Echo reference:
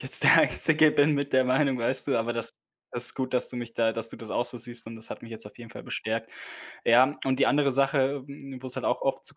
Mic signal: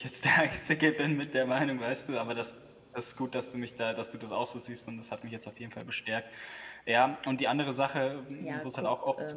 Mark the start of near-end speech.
8 s

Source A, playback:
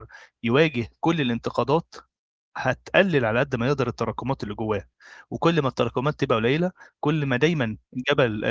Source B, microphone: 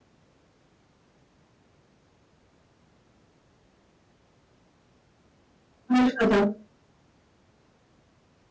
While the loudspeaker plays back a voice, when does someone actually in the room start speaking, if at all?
6 s

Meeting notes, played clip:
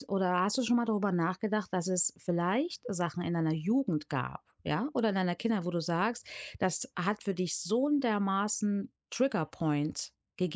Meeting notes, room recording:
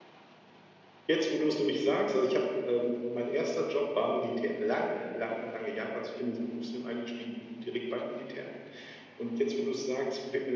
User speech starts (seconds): 1 s

